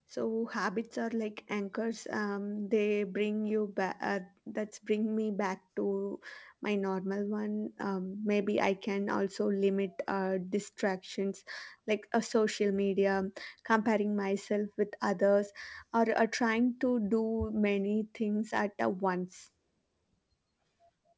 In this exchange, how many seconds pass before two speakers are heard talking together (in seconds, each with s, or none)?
none